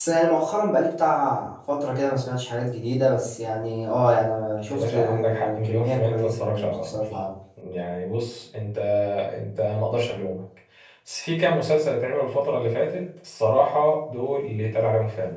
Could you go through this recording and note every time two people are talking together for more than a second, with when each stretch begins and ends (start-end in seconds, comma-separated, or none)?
4.7-6.9